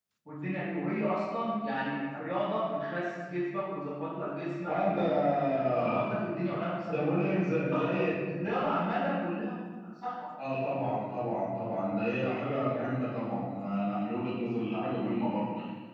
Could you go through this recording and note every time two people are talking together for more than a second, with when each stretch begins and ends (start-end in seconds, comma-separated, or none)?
none